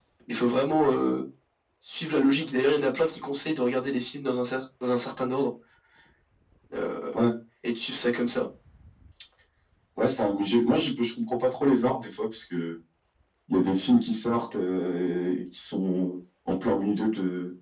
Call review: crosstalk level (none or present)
none